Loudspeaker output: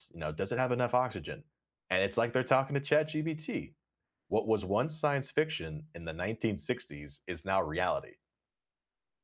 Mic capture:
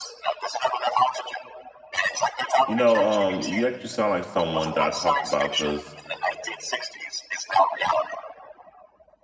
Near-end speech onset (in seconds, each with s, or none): 2.6 s